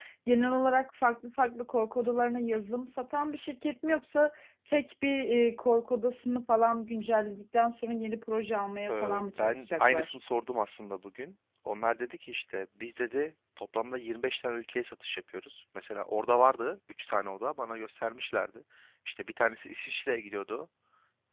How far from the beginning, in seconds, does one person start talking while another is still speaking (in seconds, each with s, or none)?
8.9 s